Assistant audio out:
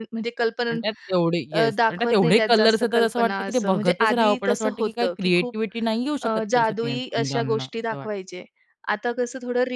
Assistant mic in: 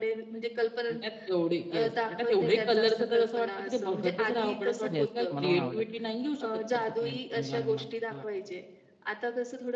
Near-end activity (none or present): present